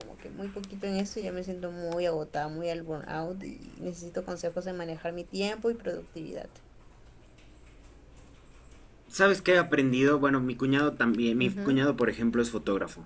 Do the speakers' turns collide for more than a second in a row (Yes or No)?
No